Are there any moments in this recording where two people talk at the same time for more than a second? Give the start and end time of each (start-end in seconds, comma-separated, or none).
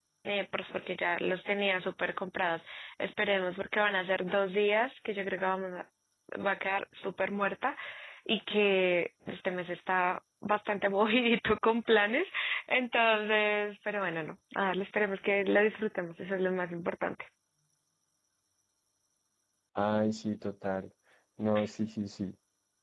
none